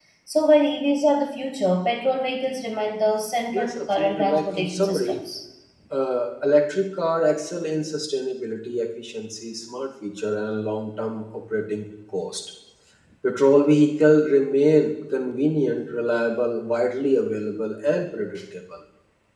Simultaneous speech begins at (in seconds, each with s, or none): 3.5 s